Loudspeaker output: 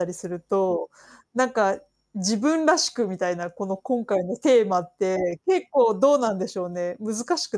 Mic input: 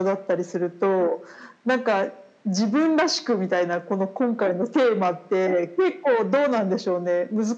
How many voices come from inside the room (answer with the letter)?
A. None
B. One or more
A